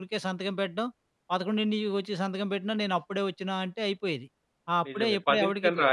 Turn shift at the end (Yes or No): Yes